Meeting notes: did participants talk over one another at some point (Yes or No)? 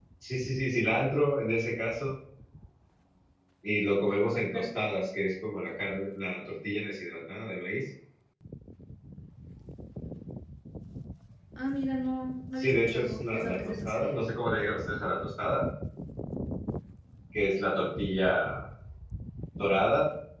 Yes